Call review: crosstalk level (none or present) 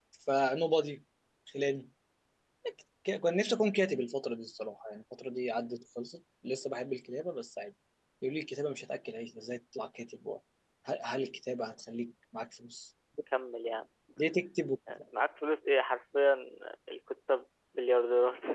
none